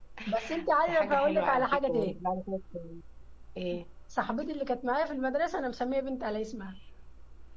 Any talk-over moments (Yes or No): Yes